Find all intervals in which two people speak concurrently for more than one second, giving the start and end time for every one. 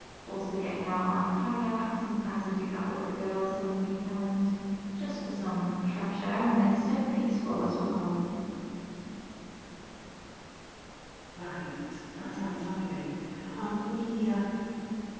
none

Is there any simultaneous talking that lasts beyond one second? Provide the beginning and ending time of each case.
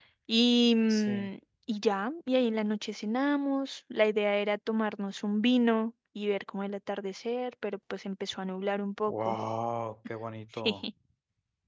none

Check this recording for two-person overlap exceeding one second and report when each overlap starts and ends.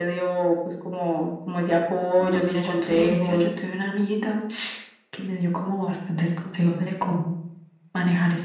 2.2-3.4

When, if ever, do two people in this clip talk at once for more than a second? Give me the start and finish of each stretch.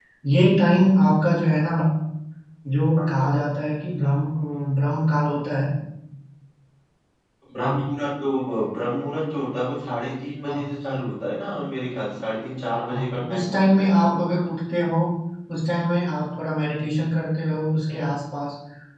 12.9-14.2

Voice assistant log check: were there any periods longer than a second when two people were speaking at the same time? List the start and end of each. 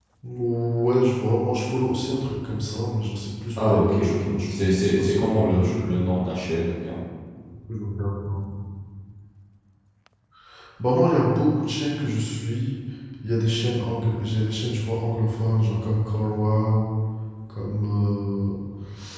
3.6-5.9

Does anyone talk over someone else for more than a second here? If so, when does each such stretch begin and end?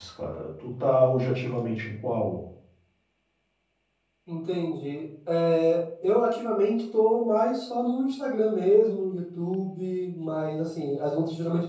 none

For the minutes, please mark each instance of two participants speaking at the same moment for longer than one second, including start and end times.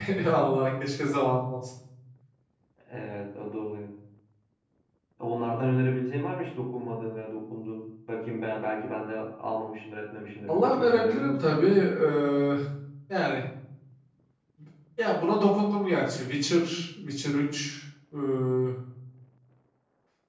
10.5-11.7

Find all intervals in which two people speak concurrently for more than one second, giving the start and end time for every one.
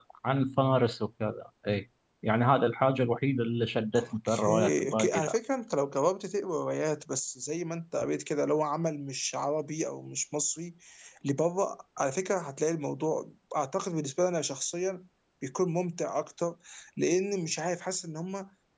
4.0-5.4

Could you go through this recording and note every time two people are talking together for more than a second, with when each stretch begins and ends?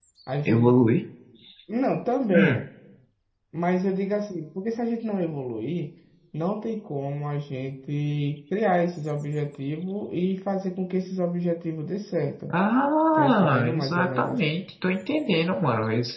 13.1-14.4

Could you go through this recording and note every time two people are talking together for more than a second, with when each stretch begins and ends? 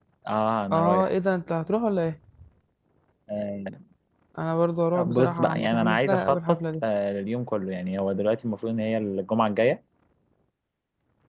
5.0-6.8

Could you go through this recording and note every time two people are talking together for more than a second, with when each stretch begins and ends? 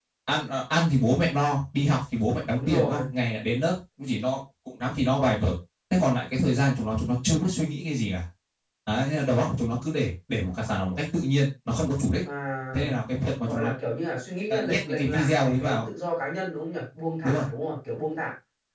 14.5-15.8

